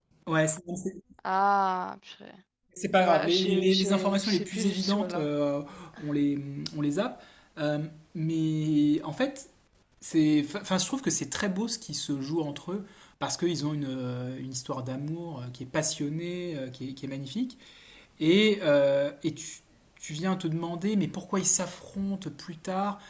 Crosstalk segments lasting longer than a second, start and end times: 3.0-5.2

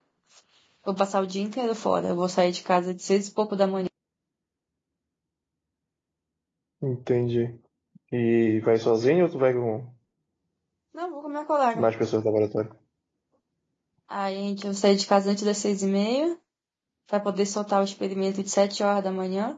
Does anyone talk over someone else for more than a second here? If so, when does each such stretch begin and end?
none

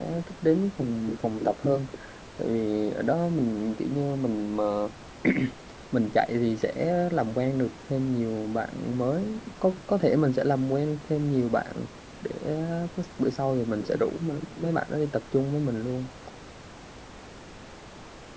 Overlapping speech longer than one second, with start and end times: none

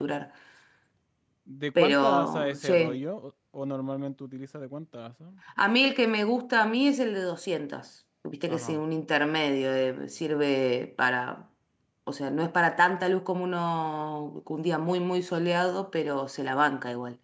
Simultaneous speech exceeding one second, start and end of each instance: 1.8-3.0

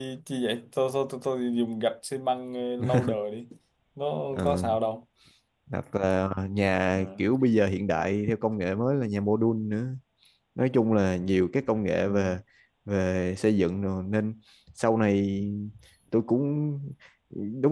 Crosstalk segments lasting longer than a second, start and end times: none

